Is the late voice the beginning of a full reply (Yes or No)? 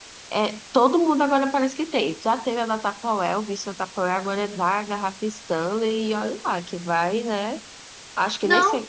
Yes